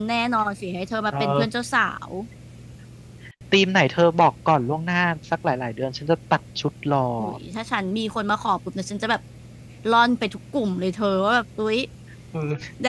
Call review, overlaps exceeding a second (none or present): none